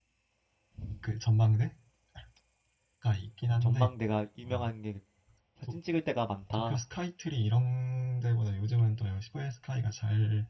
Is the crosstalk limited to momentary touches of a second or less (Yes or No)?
Yes